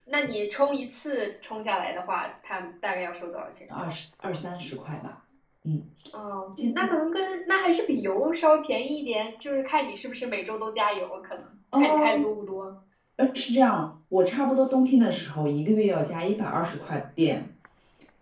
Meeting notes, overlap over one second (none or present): none